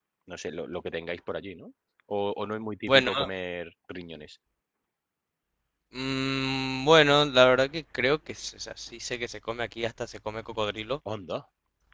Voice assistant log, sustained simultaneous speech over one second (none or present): none